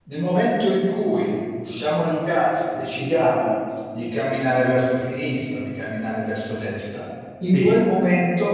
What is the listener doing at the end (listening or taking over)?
listening